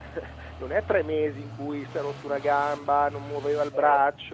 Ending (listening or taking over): listening